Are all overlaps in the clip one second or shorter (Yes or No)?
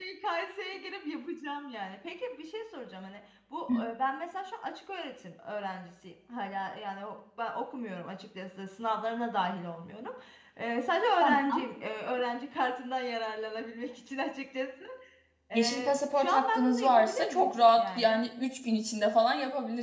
No